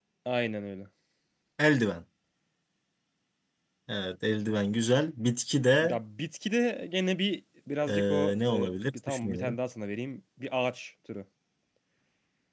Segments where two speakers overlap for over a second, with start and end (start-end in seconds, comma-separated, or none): 7.9-9.6